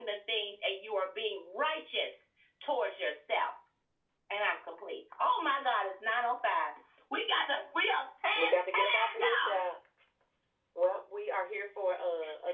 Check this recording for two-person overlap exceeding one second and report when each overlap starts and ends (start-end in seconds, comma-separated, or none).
8.3-9.6